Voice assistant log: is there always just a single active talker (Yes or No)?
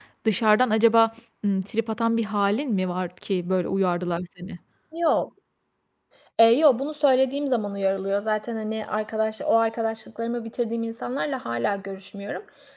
Yes